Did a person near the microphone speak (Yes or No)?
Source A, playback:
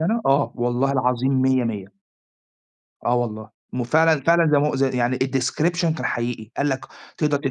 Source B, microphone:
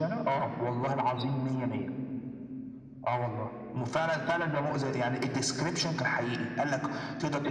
No